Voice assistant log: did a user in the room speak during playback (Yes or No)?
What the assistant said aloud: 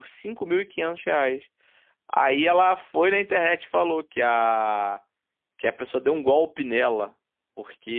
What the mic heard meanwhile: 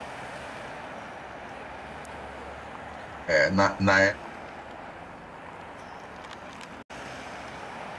Yes